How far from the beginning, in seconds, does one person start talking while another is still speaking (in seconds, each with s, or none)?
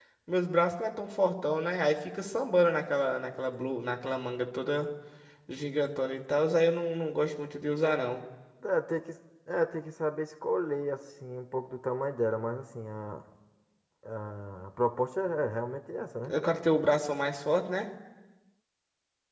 none